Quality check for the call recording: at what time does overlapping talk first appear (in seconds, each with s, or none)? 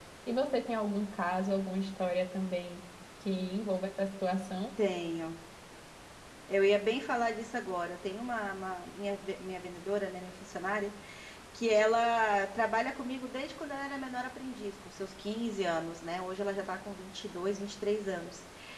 none